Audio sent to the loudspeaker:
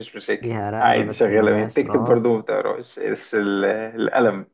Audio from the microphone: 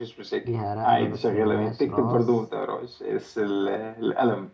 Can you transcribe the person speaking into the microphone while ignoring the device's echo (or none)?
none